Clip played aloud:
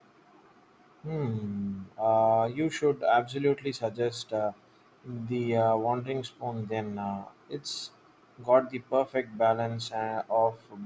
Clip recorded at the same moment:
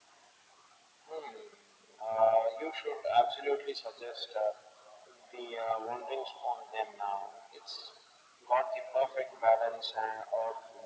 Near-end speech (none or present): none